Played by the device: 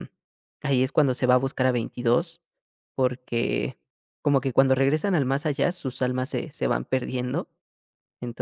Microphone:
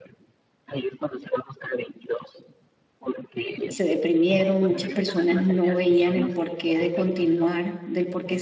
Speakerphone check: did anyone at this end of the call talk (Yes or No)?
Yes